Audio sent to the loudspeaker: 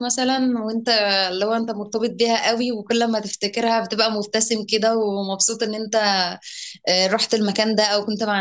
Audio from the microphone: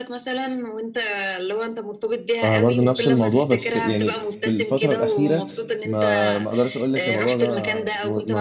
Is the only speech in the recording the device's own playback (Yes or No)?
No